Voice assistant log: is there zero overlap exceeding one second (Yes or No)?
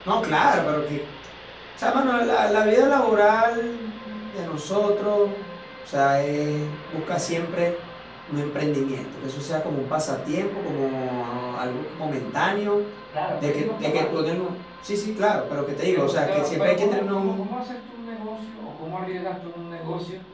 No